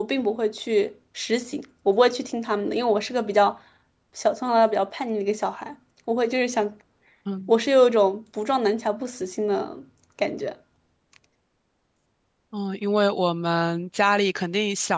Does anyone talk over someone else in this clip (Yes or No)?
No